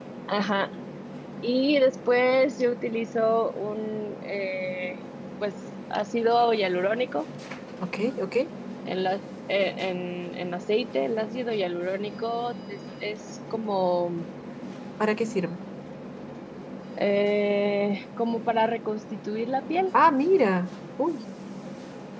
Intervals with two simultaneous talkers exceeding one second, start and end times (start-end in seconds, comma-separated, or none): none